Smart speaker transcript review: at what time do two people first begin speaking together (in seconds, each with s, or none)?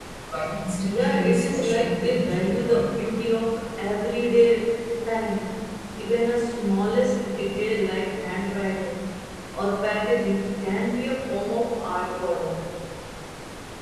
1.0 s